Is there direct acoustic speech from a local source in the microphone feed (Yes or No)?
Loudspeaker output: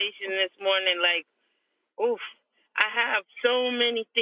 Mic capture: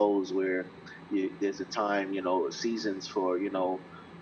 Yes